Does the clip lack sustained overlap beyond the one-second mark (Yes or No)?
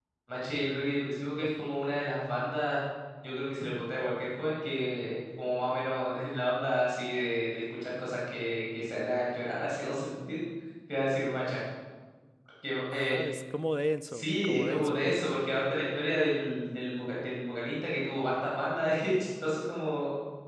No